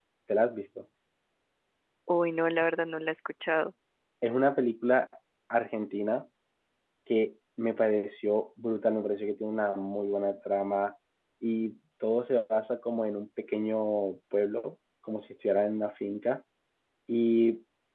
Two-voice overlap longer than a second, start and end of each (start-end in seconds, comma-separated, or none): none